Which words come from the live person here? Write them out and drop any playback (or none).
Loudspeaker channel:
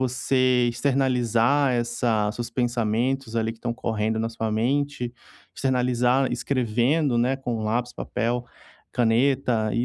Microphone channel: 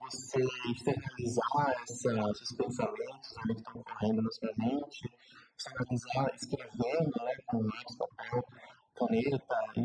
none